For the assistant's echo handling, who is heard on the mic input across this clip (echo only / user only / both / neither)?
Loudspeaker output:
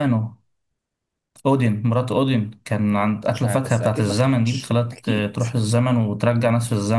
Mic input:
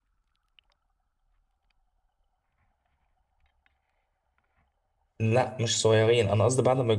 user only